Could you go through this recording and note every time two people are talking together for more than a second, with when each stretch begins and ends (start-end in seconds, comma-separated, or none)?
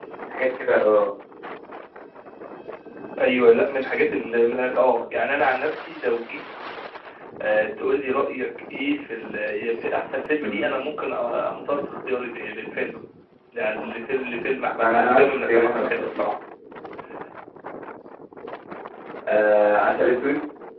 14.8-16.2